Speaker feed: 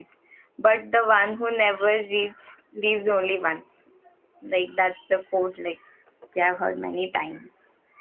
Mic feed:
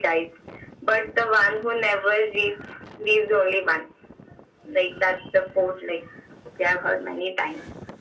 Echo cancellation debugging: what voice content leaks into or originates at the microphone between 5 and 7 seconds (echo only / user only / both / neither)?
echo only